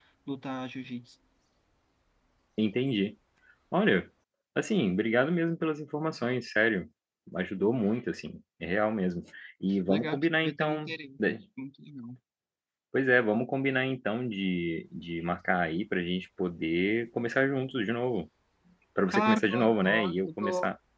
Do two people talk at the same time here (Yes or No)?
Yes